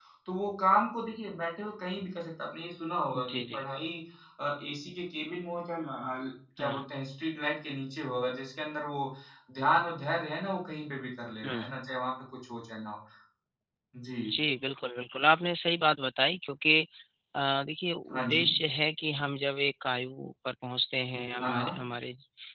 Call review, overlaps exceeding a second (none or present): none